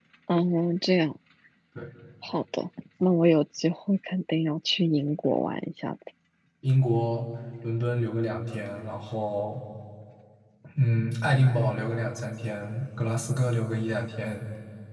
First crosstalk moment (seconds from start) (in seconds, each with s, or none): none